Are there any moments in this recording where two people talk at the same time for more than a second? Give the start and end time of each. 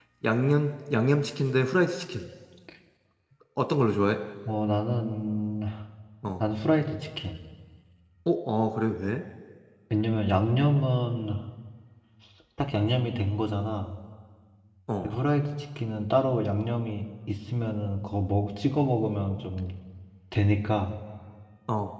none

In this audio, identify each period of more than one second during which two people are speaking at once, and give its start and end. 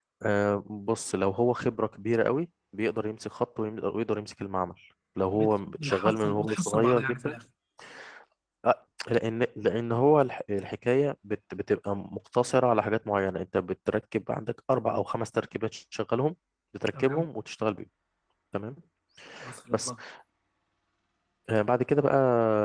5.3-7.3

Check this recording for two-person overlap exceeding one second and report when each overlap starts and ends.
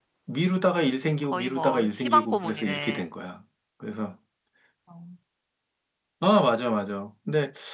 1.3-3.1

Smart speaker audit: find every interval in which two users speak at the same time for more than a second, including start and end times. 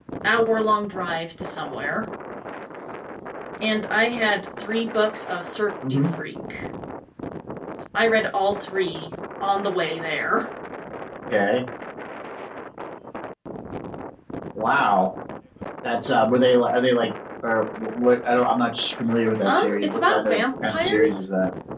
19.4-21.2

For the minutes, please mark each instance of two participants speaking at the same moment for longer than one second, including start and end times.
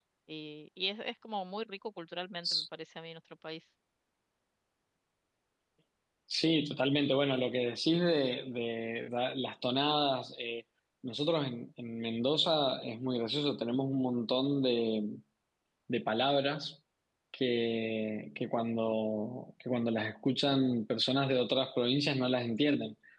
none

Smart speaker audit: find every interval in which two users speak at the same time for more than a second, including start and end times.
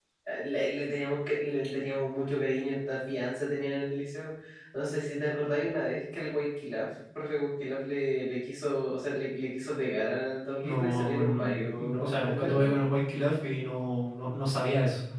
10.6-12.7

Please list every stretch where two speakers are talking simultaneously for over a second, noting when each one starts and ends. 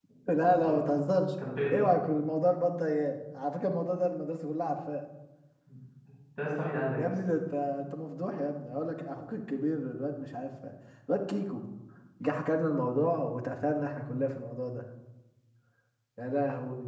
none

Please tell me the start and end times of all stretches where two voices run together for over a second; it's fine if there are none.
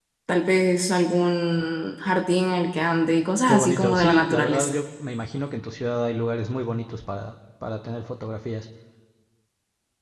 3.5-4.7

